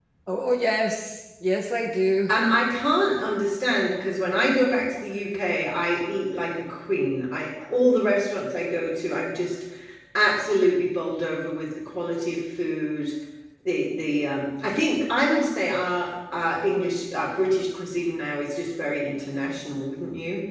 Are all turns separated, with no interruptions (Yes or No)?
Yes